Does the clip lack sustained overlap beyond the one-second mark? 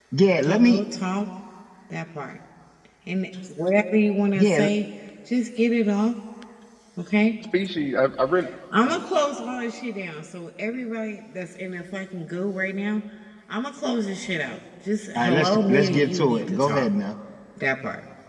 No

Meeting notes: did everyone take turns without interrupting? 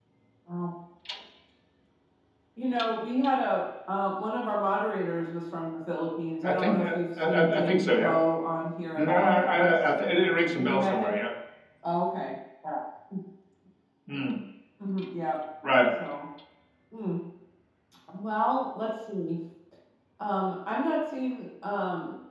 No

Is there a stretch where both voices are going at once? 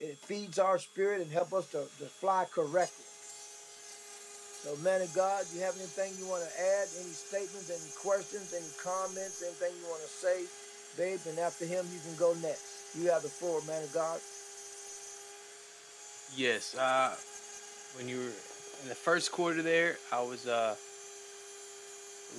No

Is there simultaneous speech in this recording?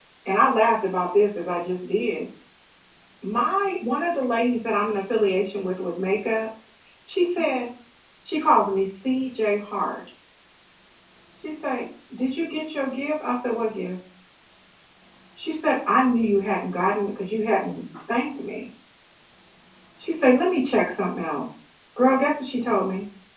No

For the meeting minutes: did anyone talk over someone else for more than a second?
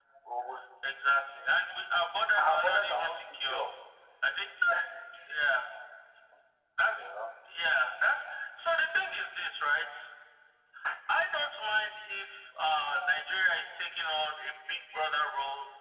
Yes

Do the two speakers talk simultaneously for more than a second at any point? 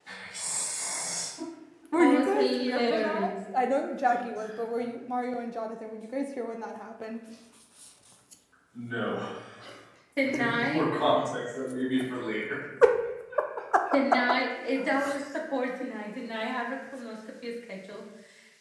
Yes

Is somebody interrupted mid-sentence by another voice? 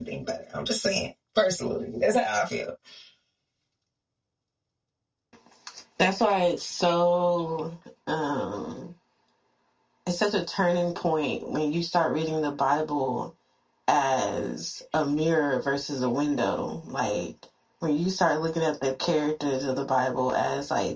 No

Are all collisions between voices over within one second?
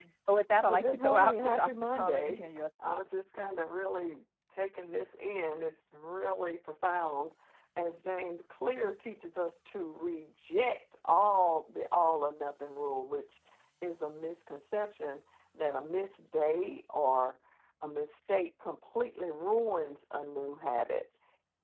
No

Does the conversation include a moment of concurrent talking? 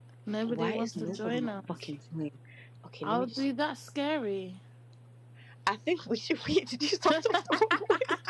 Yes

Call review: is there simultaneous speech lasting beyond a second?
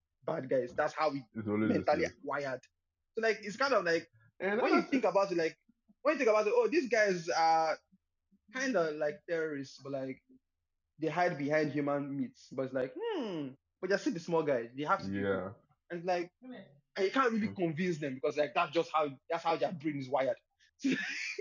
No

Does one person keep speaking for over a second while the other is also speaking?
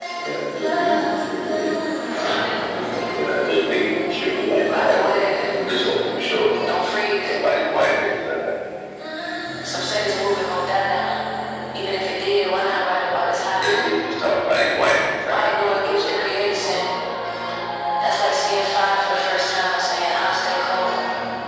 Yes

